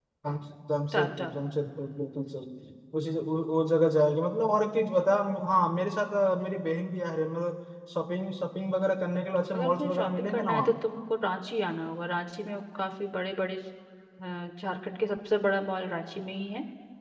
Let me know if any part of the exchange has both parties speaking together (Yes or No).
Yes